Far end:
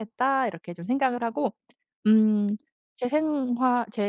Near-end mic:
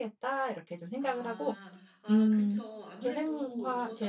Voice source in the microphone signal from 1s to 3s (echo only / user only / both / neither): both